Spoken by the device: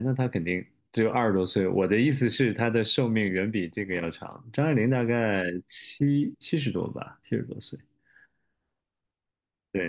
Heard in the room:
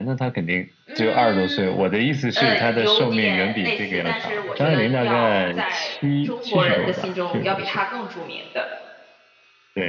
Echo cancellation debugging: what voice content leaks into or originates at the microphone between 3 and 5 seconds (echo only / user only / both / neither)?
both